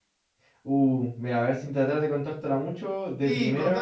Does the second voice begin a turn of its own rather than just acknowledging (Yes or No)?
Yes